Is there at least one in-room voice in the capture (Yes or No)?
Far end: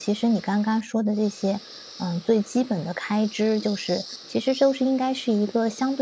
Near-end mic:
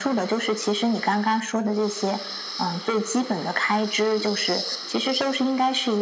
No